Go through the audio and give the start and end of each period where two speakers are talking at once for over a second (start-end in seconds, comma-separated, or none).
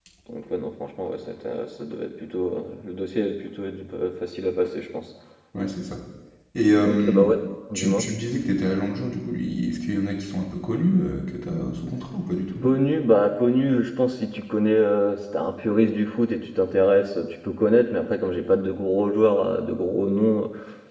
none